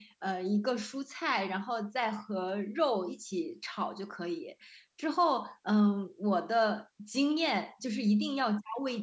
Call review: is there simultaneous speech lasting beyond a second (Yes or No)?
No